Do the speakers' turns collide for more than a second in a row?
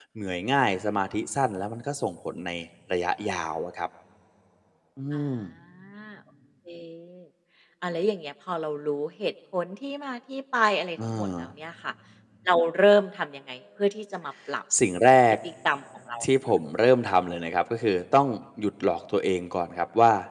No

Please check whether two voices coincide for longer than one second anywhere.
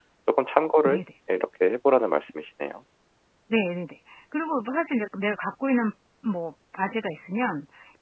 No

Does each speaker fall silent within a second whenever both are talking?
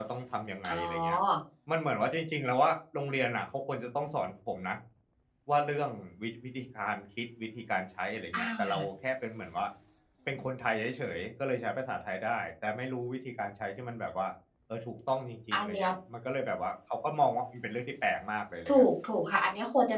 Yes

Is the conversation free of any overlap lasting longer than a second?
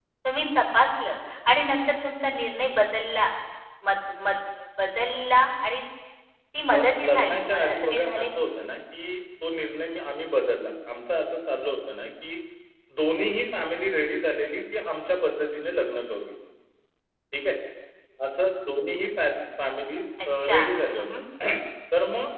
No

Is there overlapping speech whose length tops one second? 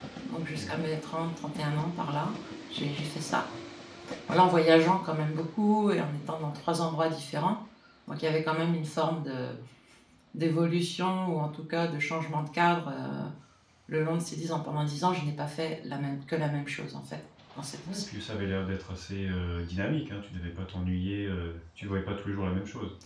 No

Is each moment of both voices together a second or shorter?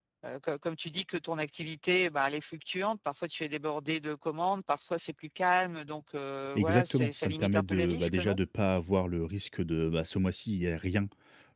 No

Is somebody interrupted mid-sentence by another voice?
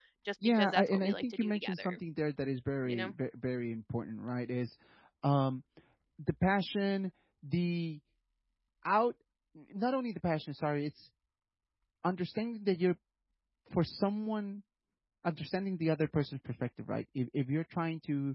Yes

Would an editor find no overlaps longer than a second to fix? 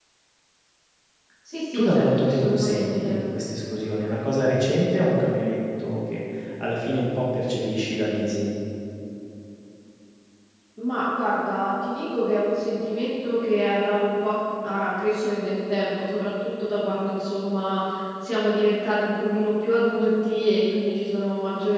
No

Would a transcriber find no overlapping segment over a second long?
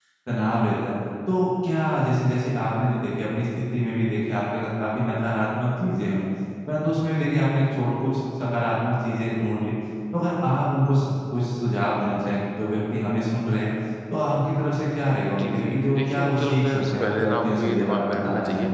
No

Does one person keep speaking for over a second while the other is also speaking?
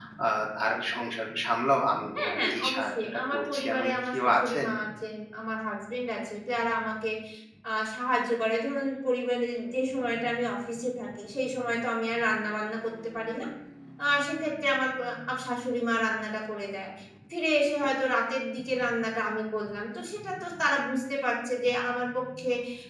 Yes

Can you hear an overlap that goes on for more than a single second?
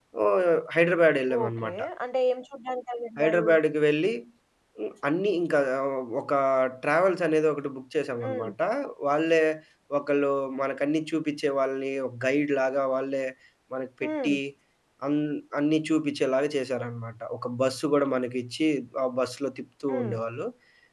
No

